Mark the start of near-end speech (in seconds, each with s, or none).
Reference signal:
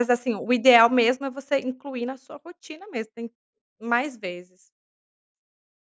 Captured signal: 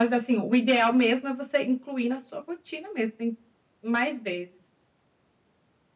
none